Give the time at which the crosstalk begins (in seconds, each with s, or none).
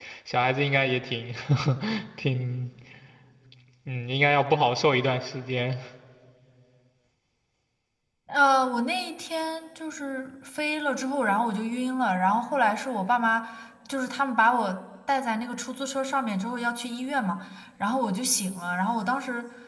none